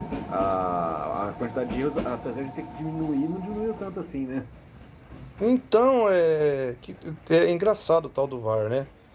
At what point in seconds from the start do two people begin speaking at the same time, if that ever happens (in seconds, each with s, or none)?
none